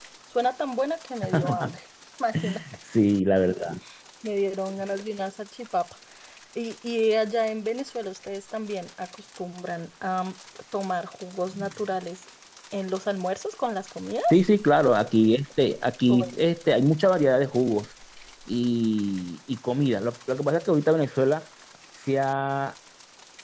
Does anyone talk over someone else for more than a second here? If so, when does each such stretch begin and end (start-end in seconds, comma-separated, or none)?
none